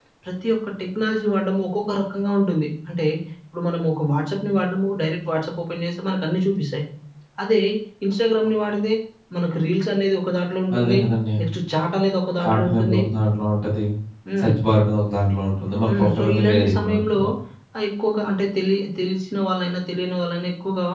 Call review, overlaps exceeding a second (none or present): present